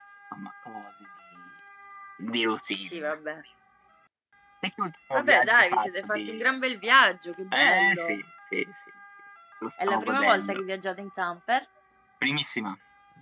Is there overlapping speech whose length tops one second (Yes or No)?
Yes